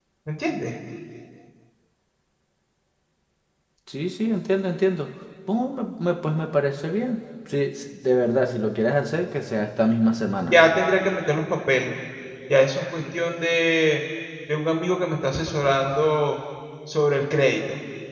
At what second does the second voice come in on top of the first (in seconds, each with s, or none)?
none